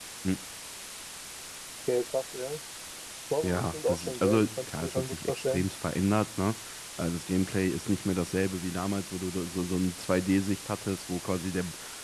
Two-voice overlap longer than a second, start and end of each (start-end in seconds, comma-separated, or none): 3.4-5.7